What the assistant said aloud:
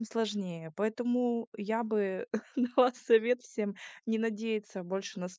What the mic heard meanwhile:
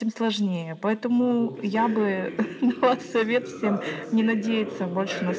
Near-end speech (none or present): present